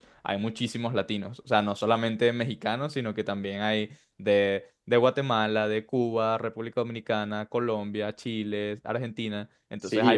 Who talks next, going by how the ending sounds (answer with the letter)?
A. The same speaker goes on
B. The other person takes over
A